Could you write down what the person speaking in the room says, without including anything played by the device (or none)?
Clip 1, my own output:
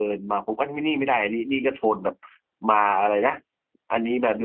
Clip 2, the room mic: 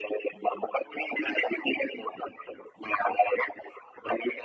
none